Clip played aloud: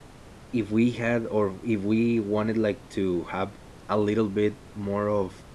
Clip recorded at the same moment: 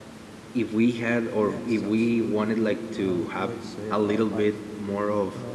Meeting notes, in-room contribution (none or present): present